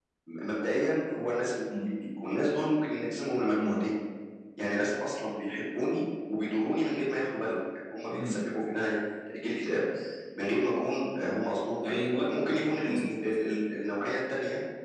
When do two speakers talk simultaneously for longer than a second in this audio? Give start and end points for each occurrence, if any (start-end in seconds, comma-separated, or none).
none